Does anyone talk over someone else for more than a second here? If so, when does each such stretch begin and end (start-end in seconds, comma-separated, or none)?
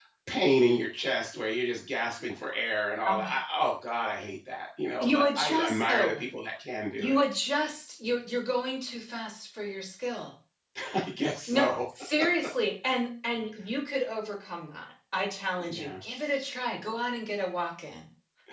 5.0-6.2